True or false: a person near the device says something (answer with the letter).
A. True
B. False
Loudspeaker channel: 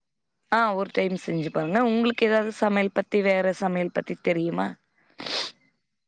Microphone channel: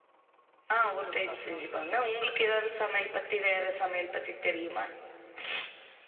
A